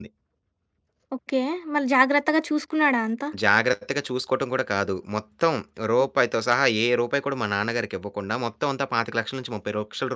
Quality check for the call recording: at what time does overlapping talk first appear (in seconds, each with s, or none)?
none